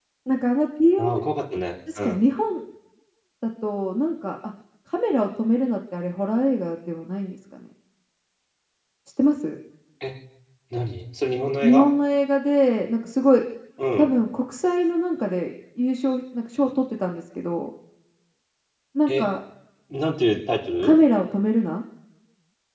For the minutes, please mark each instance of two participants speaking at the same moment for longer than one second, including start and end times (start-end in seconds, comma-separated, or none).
none